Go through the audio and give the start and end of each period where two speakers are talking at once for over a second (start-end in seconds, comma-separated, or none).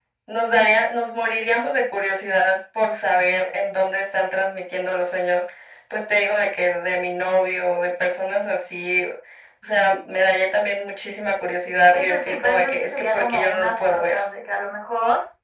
11.9-14.2